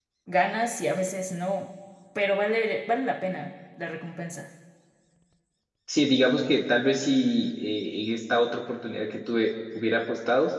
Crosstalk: none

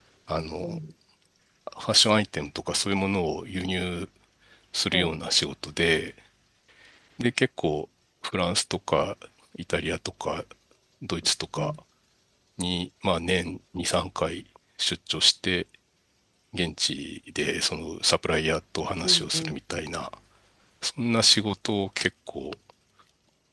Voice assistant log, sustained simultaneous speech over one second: none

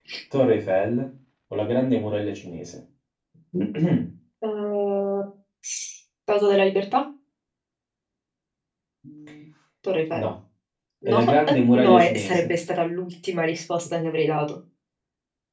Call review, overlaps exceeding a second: present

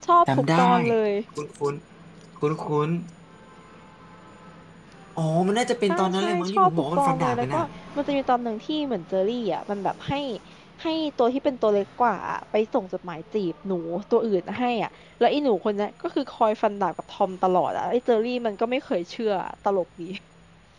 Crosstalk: present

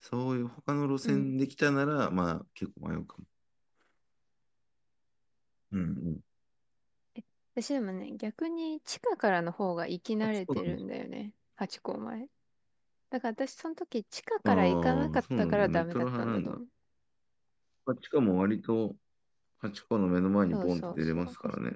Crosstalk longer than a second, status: present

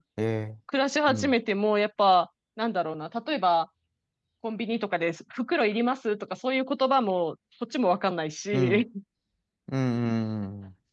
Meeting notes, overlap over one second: none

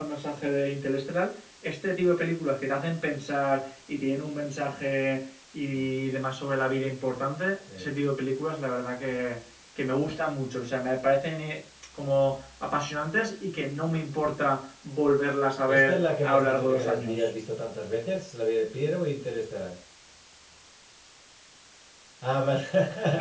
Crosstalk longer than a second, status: present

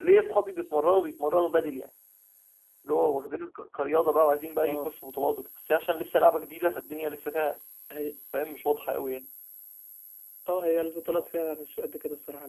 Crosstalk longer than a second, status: none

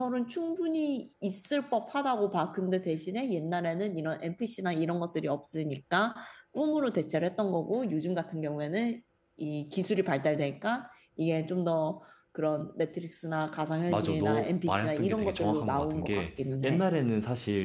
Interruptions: present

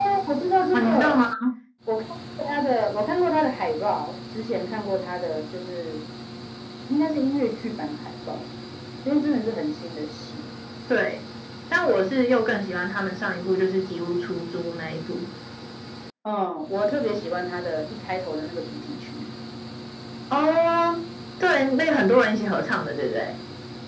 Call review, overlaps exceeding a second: none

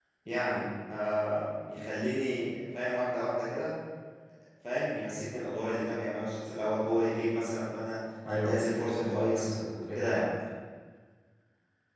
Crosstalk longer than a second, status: present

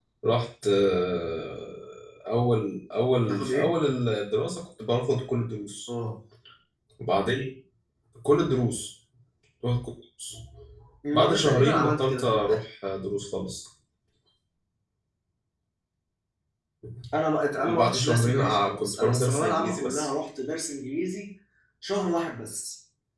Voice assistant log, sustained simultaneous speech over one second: present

